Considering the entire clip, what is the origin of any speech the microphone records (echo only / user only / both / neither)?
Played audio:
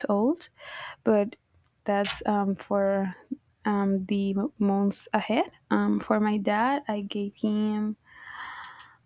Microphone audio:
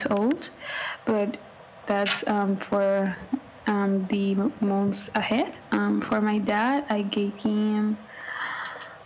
echo only